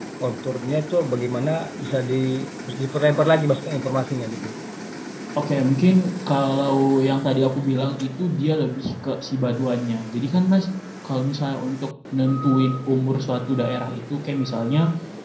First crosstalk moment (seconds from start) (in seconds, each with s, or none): none